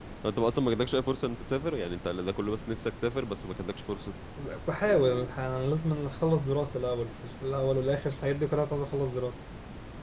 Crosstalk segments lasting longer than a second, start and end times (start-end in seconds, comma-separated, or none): none